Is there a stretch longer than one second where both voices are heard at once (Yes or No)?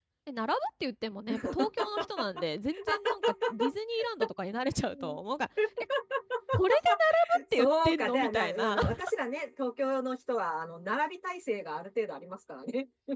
Yes